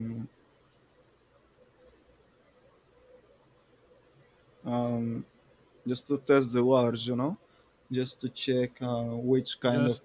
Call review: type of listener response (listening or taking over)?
listening